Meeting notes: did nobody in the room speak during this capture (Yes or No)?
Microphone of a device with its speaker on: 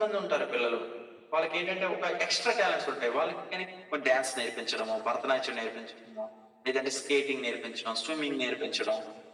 Yes